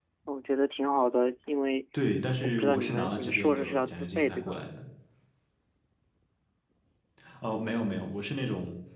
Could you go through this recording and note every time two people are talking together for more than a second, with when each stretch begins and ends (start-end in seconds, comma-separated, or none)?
2.4-4.6